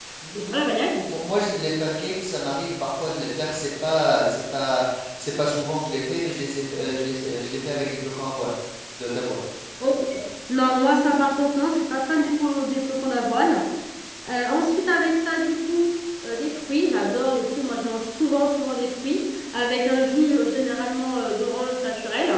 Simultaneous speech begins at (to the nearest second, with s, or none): none